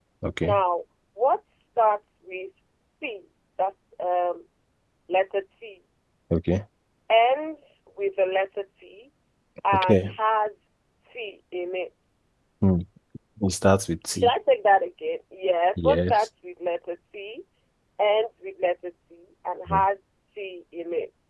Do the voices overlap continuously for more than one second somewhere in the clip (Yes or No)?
No